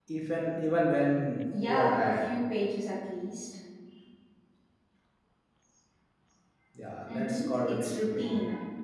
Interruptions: present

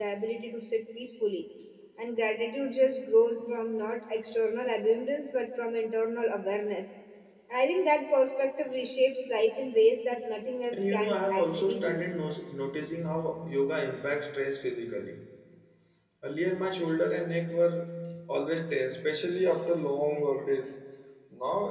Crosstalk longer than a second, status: present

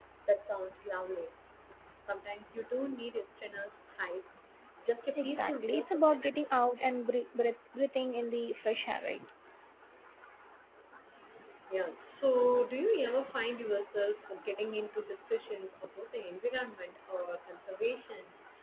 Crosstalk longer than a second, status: present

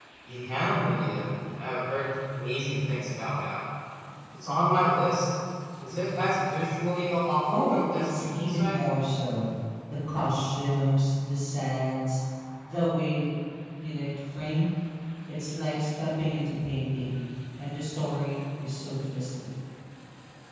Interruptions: present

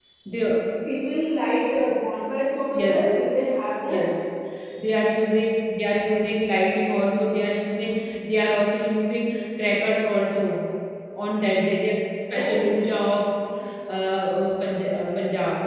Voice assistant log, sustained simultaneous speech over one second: none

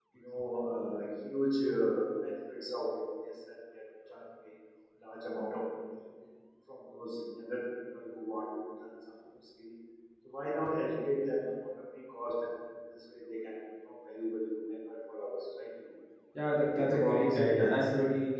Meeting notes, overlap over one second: present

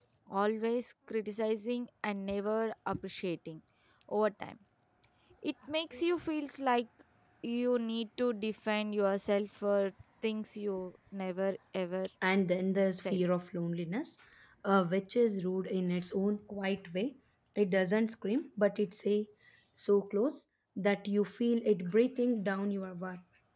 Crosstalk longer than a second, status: none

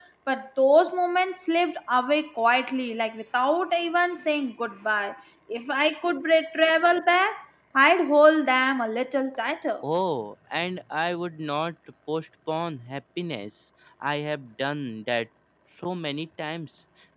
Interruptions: none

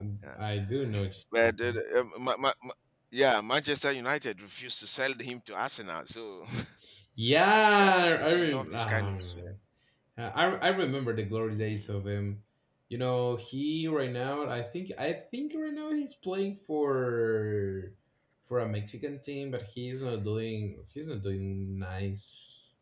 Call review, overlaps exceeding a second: present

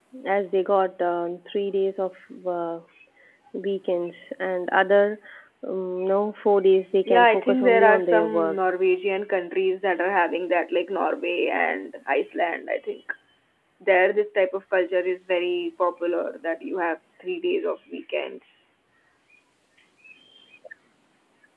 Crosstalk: present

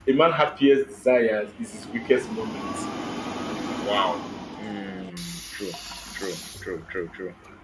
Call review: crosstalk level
none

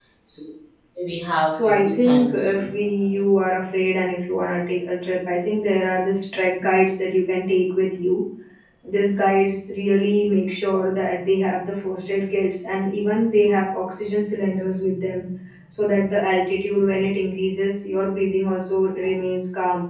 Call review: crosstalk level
present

